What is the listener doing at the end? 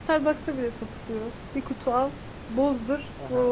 taking over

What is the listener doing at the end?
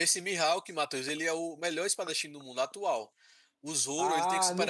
taking over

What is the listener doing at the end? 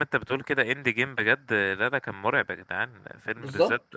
listening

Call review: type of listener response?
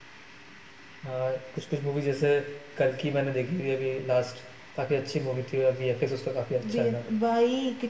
taking over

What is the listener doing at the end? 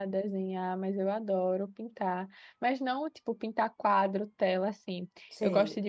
listening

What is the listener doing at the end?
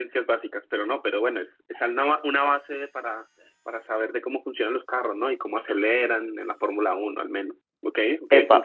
taking over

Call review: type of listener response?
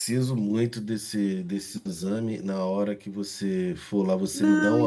taking over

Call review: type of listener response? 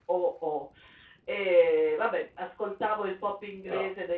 listening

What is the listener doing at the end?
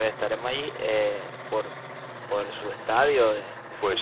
taking over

